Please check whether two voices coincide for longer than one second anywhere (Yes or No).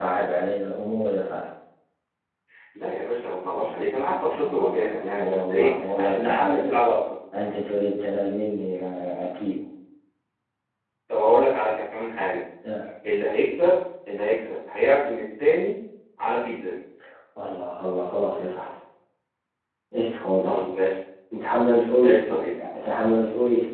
Yes